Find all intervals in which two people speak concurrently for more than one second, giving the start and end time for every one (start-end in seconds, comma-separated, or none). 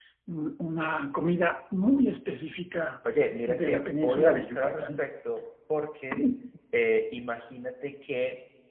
3.5-5.0